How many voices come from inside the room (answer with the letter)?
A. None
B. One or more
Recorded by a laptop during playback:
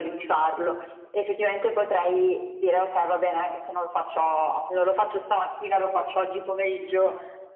A